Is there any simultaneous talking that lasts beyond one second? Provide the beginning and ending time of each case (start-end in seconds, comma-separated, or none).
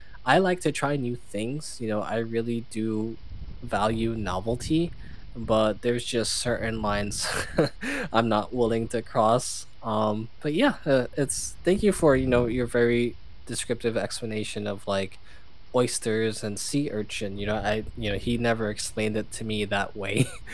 none